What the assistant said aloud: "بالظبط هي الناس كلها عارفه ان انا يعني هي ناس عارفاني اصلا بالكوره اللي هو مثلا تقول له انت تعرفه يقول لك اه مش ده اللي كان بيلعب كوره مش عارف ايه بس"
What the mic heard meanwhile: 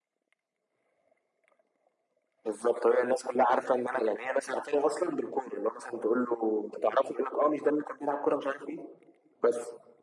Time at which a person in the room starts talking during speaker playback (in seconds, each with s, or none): none